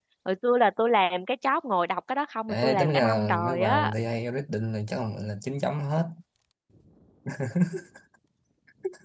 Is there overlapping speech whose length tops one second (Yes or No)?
Yes